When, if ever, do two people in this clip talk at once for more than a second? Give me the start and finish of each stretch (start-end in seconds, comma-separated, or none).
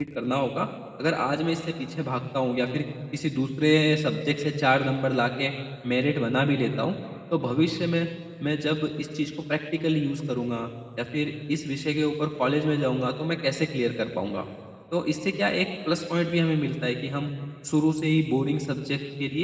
none